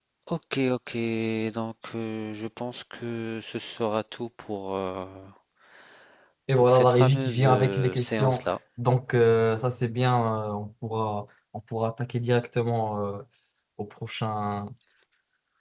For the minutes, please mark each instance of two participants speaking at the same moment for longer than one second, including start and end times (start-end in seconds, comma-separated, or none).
6.6-8.4